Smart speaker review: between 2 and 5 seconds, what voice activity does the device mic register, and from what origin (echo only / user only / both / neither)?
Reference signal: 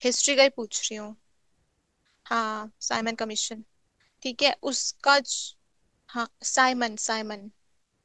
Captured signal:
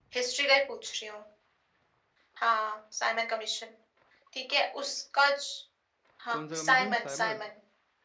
echo only